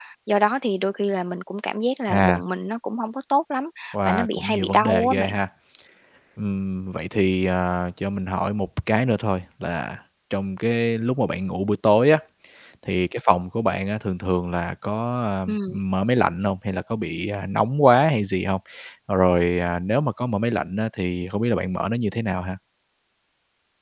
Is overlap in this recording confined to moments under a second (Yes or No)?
No